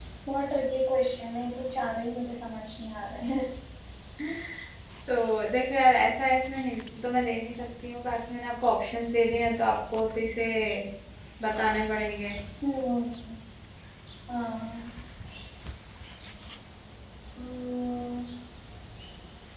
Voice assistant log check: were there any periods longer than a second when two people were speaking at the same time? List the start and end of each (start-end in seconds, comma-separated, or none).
none